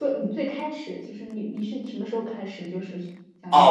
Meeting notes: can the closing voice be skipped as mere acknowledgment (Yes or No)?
No